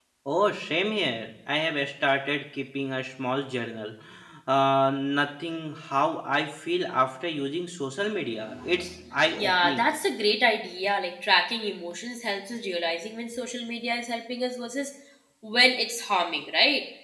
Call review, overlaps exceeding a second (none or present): none